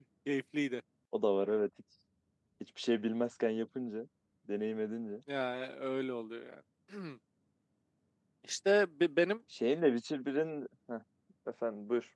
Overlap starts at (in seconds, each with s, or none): none